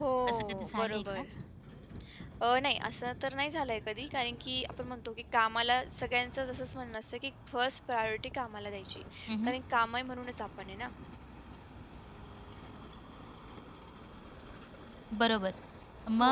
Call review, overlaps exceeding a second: present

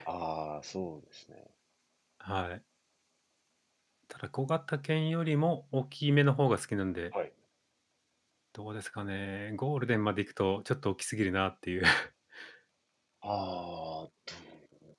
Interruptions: none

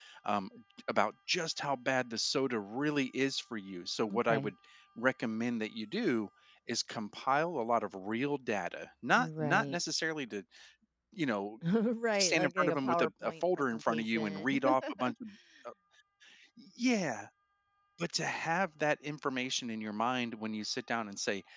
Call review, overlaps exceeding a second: present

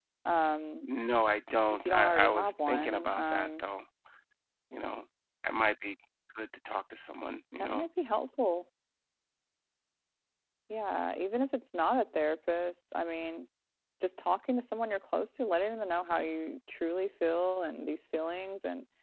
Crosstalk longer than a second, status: present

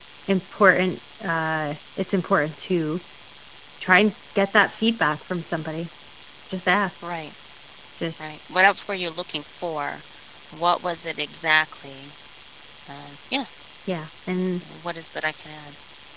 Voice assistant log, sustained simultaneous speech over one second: none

